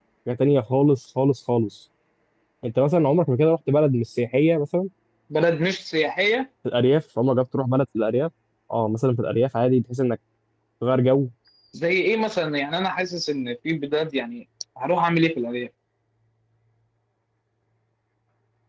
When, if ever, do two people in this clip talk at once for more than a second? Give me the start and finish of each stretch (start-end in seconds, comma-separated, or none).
none